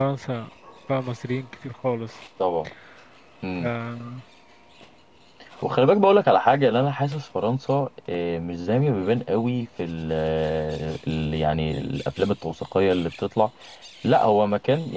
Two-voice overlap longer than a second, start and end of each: none

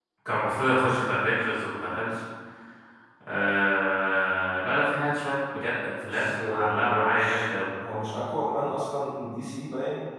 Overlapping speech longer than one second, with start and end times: 6.0-7.5

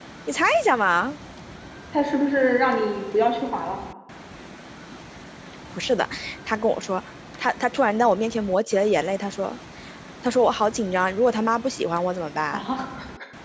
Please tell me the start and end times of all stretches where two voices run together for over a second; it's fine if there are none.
none

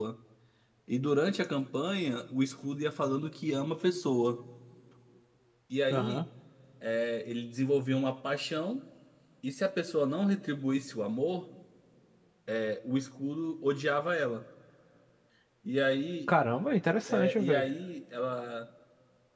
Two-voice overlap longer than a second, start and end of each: none

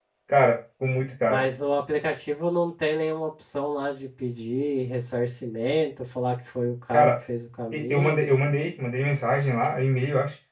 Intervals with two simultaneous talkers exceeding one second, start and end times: none

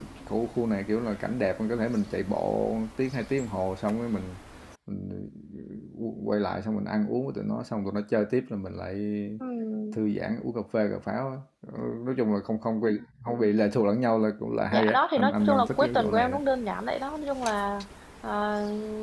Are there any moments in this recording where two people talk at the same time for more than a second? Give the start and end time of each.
14.7-16.4

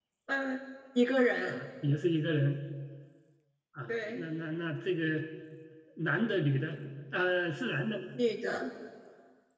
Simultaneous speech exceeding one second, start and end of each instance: none

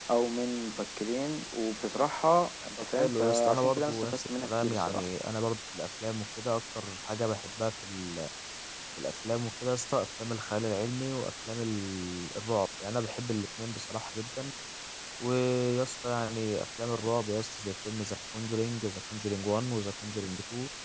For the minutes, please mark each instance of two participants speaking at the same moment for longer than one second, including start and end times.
2.8-5.0

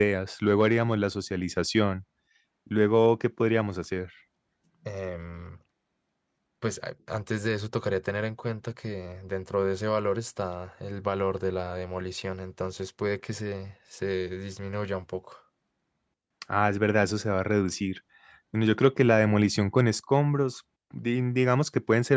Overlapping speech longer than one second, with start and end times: none

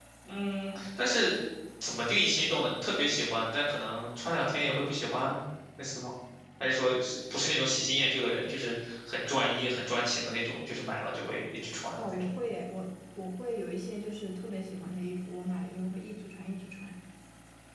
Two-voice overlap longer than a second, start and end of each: none

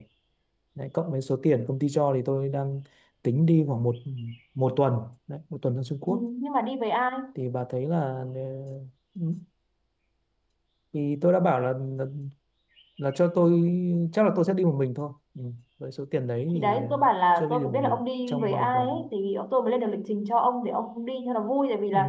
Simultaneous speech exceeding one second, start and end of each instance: 17.4-19.0

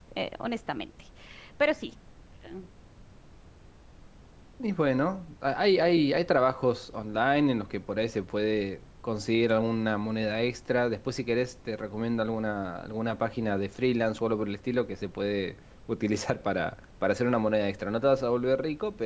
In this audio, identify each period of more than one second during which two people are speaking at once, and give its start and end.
none

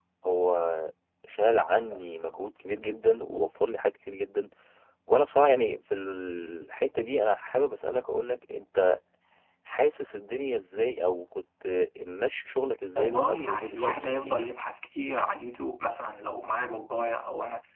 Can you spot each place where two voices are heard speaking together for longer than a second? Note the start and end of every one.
13.0-14.4

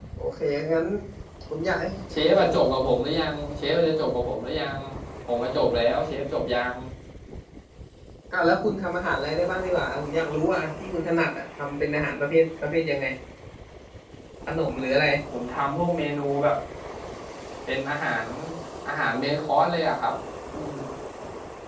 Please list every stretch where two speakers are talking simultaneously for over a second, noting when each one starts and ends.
none

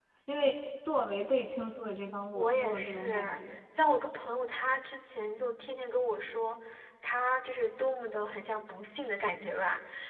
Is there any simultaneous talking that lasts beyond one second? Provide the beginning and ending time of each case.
2.3-3.6

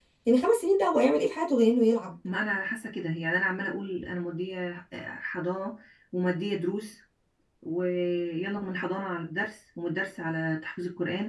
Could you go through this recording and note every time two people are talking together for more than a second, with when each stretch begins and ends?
none

